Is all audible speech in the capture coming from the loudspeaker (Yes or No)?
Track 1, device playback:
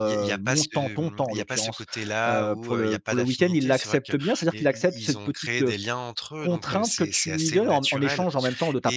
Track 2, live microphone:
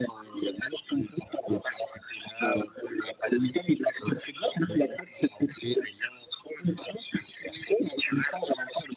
Yes